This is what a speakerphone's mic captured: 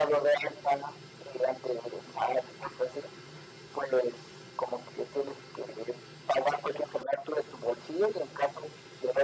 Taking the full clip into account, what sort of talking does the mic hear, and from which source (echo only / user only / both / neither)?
echo only